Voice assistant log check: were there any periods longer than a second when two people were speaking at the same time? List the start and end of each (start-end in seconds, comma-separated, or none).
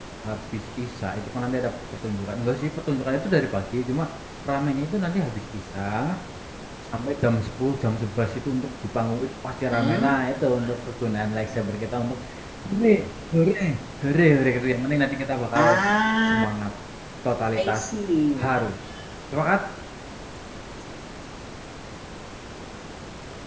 none